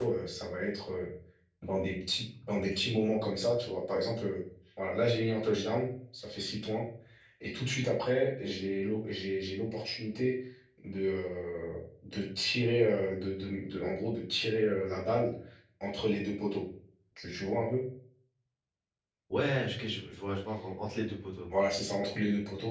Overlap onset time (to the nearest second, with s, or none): none